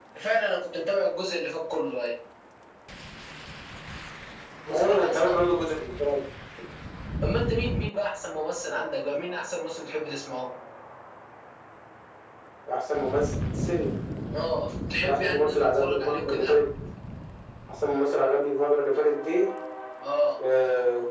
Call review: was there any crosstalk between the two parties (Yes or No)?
Yes